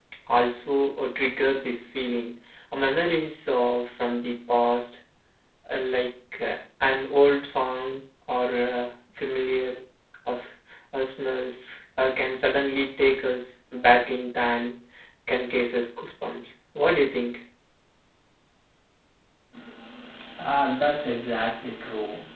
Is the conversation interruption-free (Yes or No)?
Yes